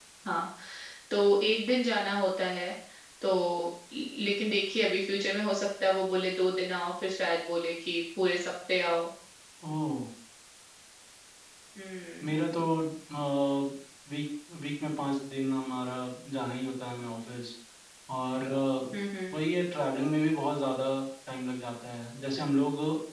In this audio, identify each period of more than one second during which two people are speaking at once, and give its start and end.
none

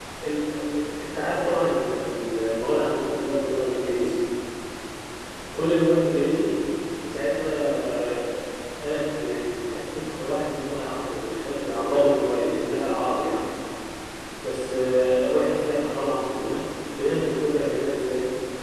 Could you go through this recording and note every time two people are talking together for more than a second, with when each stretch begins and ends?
none

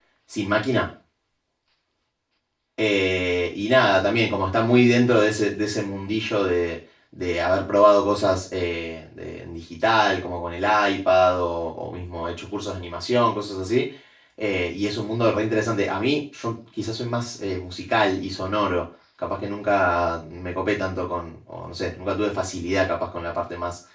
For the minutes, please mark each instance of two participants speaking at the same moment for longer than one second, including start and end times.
none

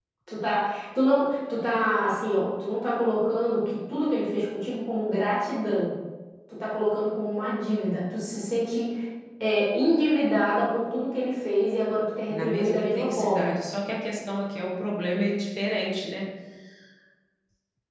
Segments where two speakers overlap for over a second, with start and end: 12.3-13.5

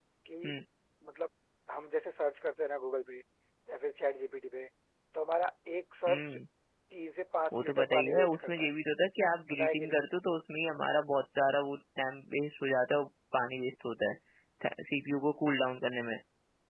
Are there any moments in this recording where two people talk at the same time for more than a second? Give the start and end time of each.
7.5-8.7

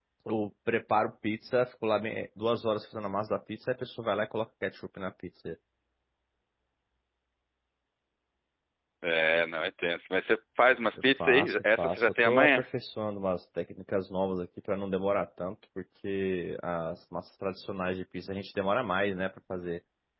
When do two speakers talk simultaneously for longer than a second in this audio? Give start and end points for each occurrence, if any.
11.2-12.6

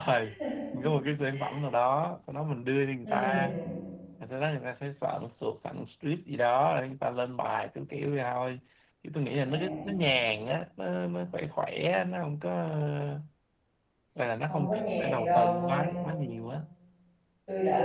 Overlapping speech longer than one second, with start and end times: 14.5-16.0

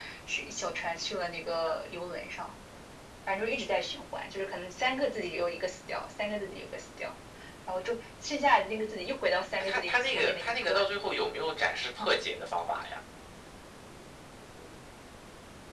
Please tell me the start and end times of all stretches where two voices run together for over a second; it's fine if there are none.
9.6-10.8

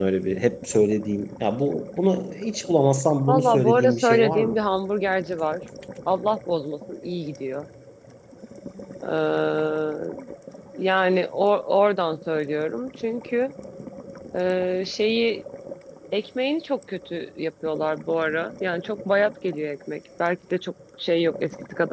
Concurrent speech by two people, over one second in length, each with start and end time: 3.3-4.6

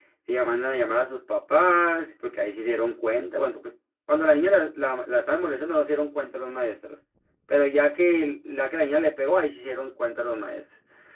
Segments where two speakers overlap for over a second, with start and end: none

